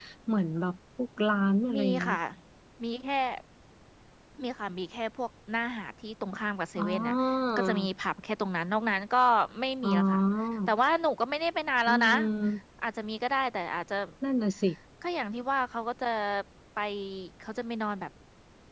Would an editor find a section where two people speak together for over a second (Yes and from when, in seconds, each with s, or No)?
No